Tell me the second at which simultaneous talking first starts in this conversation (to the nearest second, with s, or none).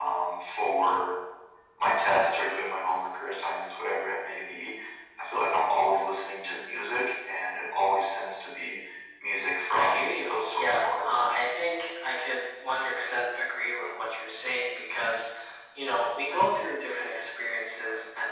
10 s